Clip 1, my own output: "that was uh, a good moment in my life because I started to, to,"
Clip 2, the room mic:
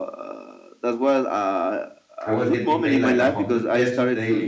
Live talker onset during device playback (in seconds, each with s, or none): 2.2 s